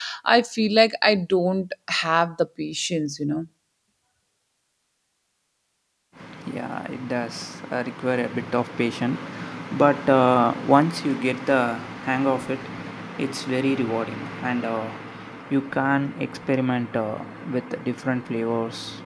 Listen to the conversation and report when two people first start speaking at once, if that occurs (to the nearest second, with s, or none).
none